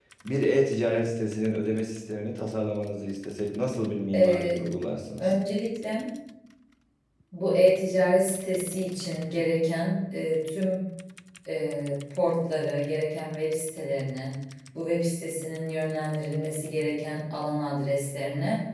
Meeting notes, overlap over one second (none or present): none